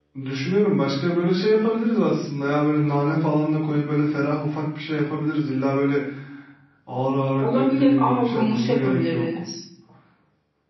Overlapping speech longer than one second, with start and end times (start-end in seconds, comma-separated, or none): 7.4-9.2